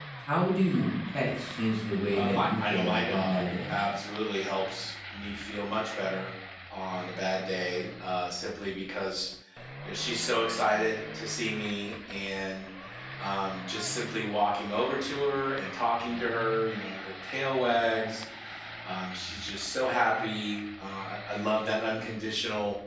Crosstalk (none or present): present